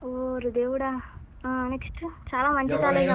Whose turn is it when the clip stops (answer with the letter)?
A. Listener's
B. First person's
B